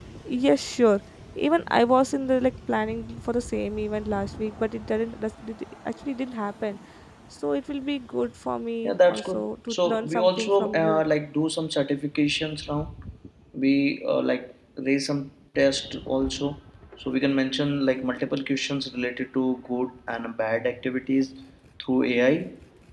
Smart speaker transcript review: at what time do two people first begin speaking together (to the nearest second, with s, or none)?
9 s